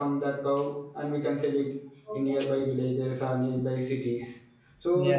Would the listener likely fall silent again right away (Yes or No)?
Yes